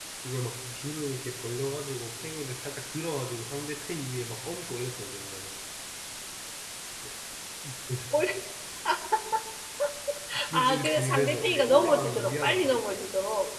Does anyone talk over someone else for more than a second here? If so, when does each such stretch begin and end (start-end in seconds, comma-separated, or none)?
10.5-13.0